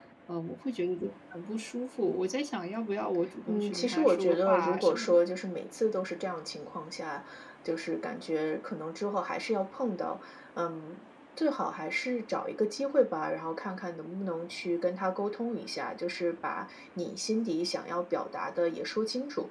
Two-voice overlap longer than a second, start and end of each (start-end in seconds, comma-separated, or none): 3.5-5.2